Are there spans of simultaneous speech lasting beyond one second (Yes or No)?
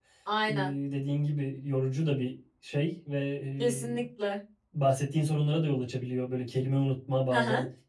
No